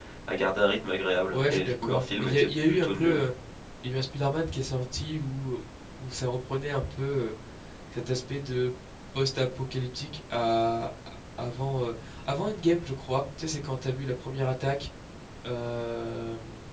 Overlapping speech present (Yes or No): Yes